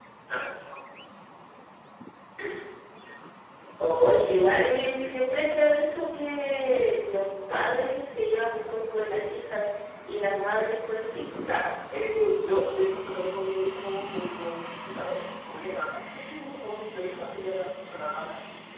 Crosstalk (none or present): none